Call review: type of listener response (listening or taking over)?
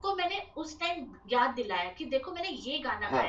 listening